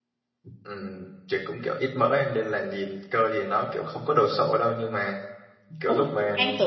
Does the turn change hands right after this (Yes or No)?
Yes